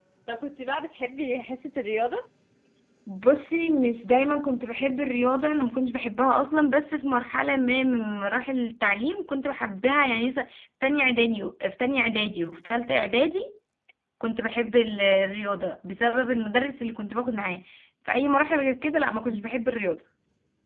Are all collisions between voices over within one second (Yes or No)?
Yes